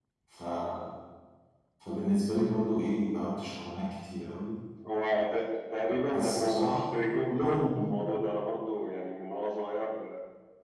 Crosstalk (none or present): present